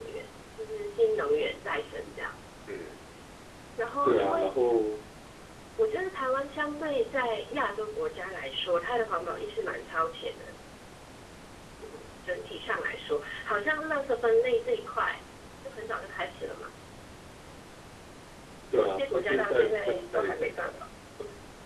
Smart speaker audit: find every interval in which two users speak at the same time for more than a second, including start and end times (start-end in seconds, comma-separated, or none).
18.7-20.7